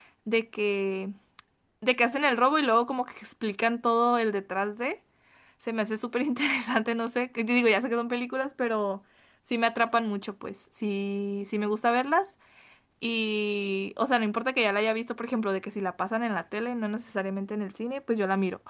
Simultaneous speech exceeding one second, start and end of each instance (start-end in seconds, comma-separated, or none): none